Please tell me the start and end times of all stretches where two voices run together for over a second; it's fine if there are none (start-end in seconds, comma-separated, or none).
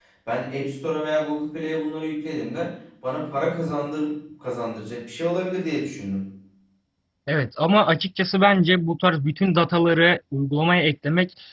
none